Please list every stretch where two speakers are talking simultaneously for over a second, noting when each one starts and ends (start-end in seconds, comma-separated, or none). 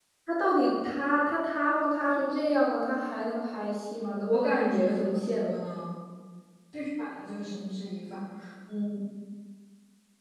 4.2-5.6